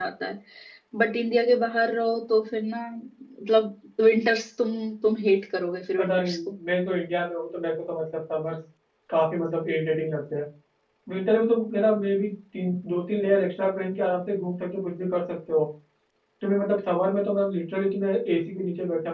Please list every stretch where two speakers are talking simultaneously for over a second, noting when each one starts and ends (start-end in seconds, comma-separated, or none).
none